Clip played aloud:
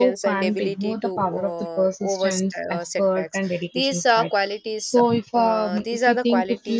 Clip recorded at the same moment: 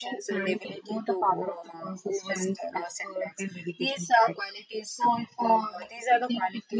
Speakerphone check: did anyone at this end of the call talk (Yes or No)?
No